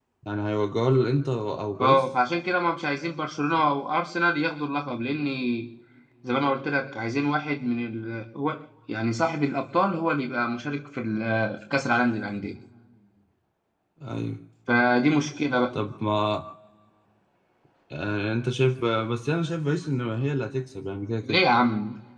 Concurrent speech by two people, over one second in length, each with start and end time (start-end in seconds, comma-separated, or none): none